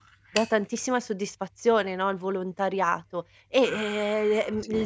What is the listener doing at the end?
listening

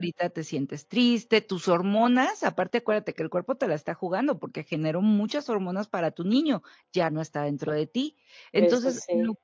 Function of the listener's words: listening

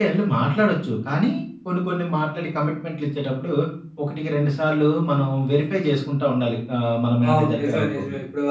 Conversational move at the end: taking over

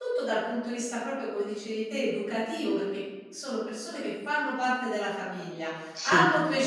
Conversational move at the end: listening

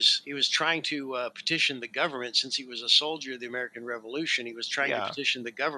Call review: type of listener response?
listening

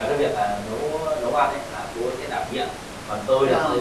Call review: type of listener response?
listening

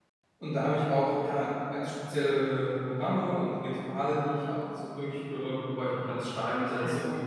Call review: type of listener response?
taking over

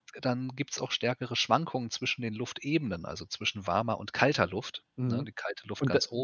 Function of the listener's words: taking over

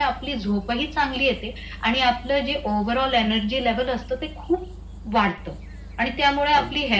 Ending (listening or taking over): listening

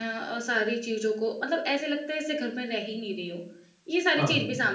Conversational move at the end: listening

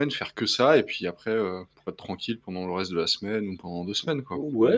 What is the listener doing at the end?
taking over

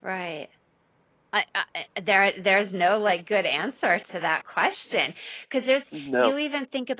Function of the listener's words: listening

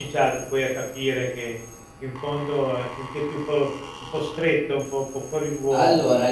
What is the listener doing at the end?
taking over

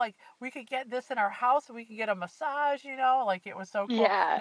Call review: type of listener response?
listening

